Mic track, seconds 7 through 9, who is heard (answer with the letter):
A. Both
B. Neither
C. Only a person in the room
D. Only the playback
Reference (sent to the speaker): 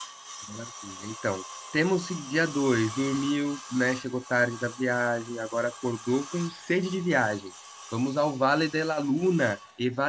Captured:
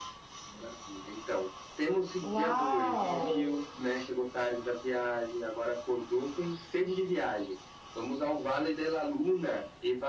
D